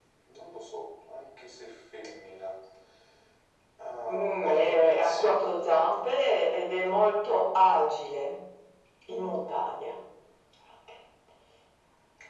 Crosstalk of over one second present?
Yes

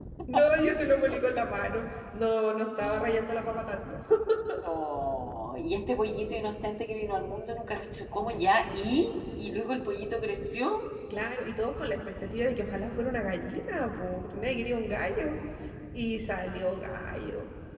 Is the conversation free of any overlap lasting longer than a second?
Yes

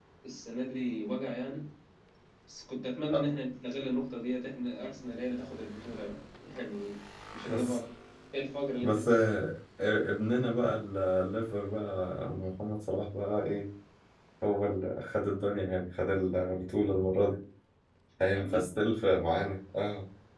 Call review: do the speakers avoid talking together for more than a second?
Yes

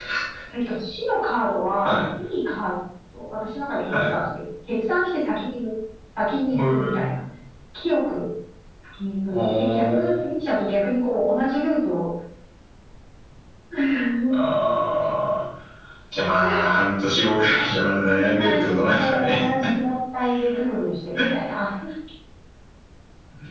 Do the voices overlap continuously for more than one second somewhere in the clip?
Yes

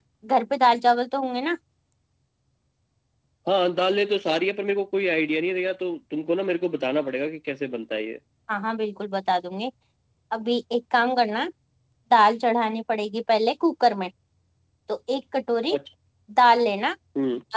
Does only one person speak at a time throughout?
Yes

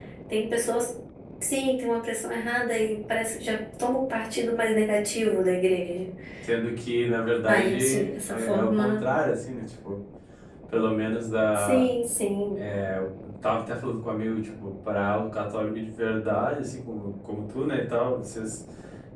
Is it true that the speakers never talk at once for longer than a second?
No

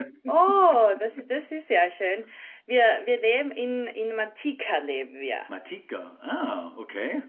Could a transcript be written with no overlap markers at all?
Yes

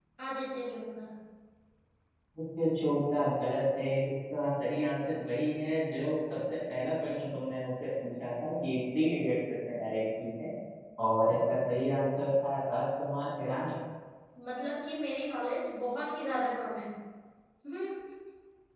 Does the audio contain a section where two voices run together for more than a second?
No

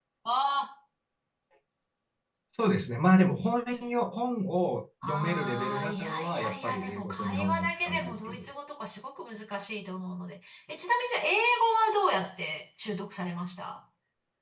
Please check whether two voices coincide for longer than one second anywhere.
Yes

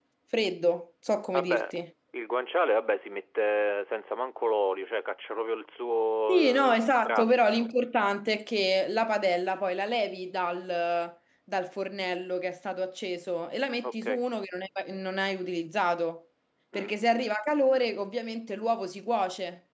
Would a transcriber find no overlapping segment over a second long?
No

